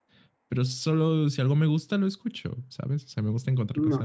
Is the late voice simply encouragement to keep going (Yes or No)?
No